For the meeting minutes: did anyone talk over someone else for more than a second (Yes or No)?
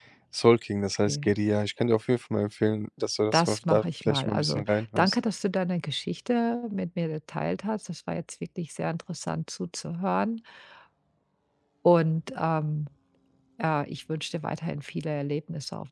Yes